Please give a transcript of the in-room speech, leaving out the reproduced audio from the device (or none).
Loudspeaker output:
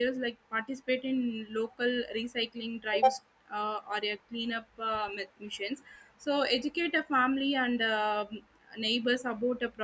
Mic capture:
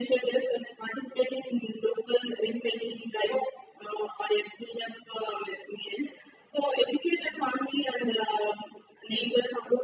none